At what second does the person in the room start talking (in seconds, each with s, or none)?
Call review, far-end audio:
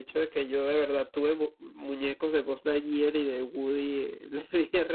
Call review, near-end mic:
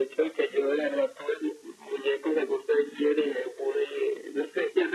none